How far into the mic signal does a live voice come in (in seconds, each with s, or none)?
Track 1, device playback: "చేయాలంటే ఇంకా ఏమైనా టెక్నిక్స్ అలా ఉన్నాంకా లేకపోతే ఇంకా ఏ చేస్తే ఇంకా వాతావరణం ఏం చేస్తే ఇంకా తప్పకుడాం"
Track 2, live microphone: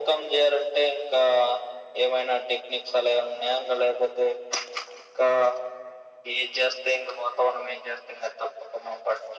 none